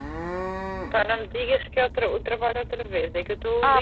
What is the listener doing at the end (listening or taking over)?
taking over